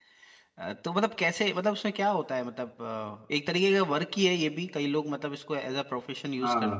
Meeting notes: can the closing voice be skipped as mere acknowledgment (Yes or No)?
No